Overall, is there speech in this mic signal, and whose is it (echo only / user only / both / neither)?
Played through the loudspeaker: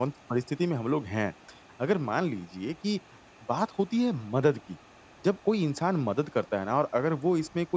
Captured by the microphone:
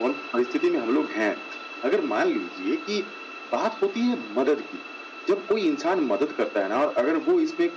echo only